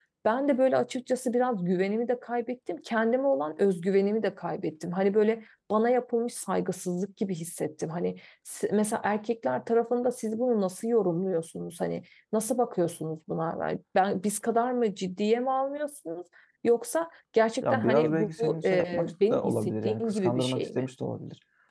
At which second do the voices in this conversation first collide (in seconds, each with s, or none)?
17.6 s